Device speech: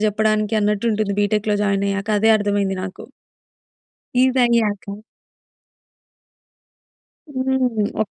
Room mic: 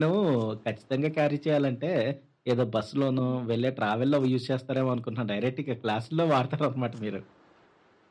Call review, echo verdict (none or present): none